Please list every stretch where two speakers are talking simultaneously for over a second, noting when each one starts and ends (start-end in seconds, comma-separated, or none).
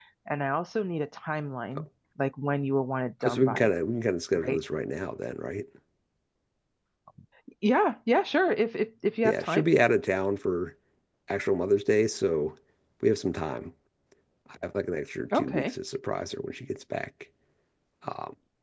none